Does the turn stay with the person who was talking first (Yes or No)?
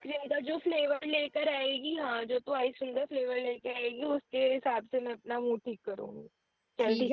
No